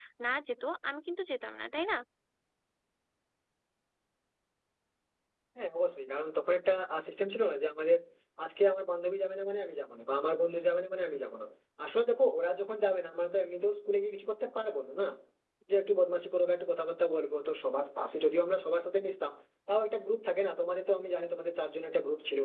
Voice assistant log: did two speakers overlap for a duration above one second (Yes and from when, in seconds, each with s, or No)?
No